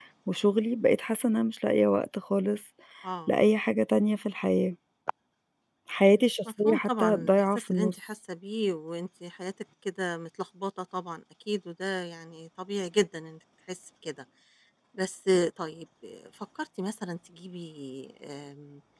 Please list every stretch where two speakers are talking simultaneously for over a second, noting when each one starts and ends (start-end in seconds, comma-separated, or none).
6.4-8.0